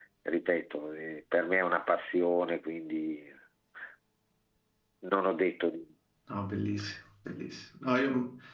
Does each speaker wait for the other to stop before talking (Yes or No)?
Yes